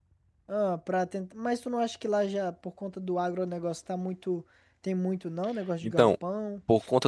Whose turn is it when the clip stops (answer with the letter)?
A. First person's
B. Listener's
B